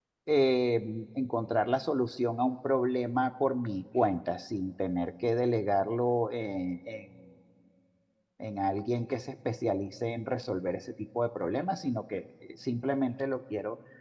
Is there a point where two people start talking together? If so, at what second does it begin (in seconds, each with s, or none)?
none